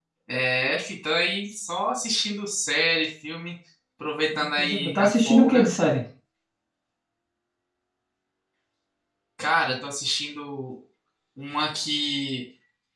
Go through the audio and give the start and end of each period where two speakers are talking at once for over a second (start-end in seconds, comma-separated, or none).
4.3-5.7